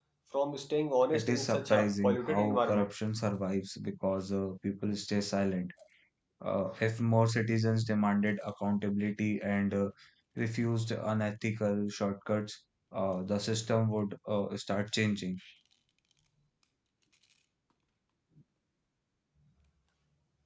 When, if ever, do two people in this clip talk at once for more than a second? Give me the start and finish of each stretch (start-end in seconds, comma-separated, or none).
1.1-2.9